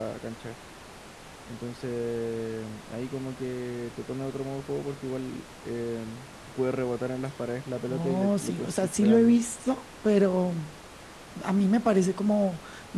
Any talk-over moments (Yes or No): Yes